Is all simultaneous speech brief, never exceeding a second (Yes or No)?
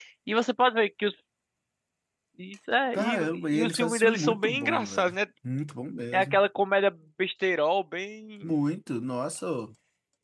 No